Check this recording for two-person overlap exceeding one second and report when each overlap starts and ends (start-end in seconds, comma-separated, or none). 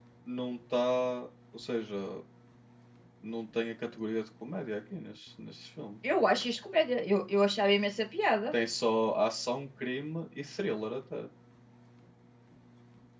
none